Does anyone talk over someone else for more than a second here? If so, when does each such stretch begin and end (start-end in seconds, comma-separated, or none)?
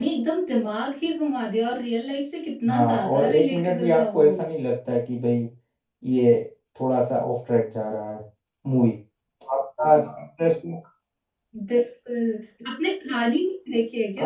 2.7-4.3